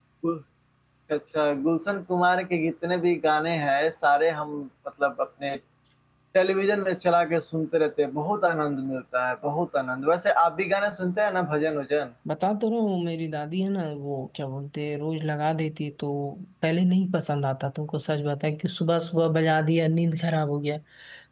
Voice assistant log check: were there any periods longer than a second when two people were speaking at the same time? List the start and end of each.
none

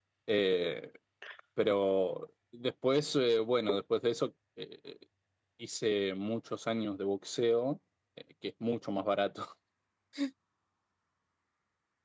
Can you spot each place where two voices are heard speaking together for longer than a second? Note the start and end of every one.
none

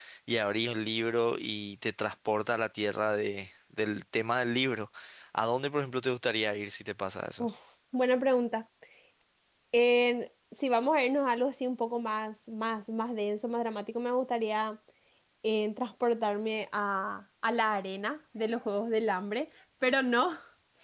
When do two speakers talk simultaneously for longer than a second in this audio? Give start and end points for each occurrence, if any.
none

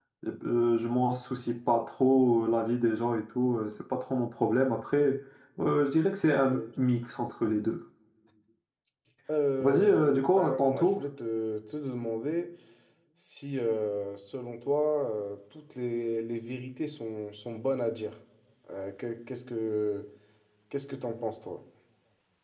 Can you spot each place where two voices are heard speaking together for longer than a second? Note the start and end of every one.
9.6-11.1

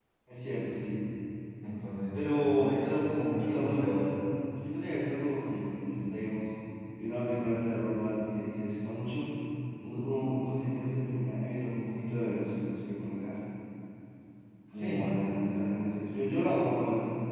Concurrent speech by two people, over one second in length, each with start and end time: 2.1-4.1

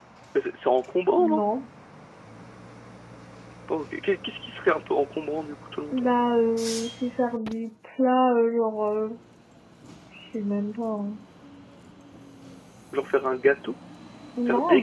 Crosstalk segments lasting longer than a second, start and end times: none

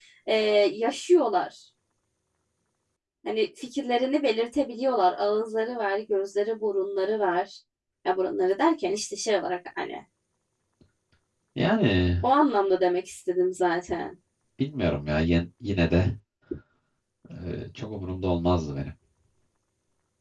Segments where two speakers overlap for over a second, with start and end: none

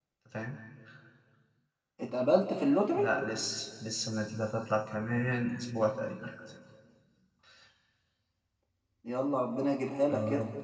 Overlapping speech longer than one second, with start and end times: none

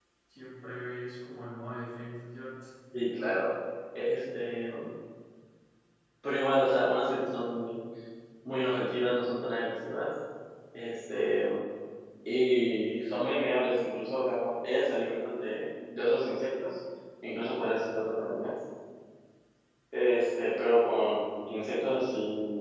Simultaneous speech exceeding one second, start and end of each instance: none

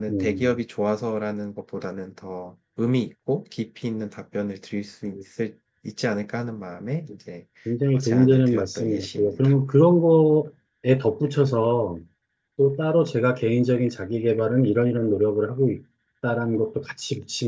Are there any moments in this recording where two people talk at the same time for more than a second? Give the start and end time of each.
7.9-9.5

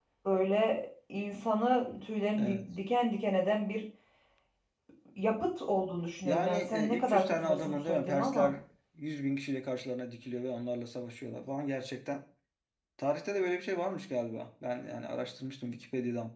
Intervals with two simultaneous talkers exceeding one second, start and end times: 6.2-8.5

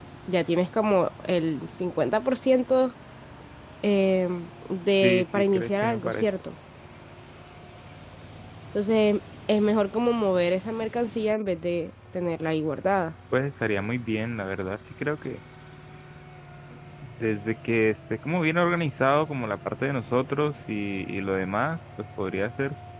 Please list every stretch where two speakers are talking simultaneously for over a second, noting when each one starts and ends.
5.0-6.2

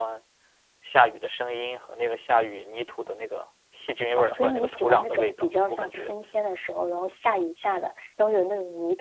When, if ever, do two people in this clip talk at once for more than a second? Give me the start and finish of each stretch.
4.2-6.1

